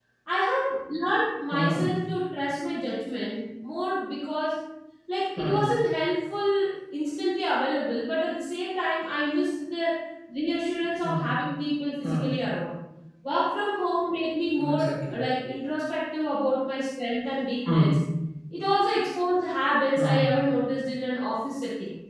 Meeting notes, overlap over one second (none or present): none